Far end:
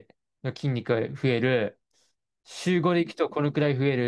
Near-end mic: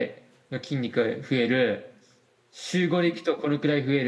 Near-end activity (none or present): none